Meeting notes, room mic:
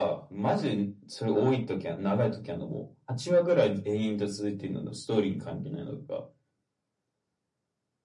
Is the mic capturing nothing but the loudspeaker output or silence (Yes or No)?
Yes